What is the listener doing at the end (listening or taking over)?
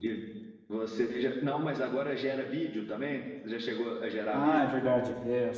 taking over